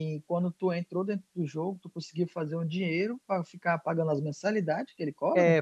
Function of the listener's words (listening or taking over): taking over